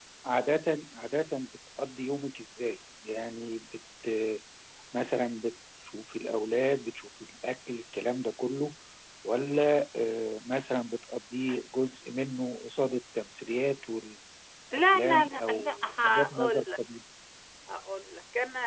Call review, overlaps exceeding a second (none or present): present